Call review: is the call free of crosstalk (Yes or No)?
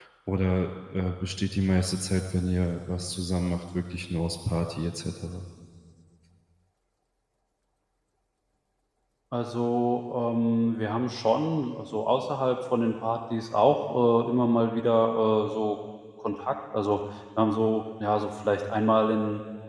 Yes